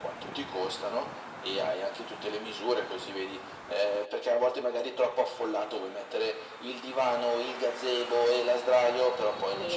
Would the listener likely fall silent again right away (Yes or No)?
No